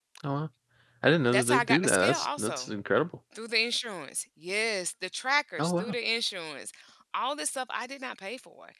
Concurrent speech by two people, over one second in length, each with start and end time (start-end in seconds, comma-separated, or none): 1.3-2.7